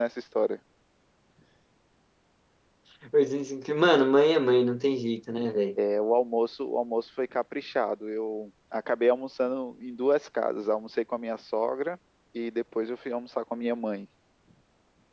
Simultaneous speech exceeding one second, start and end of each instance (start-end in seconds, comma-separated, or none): none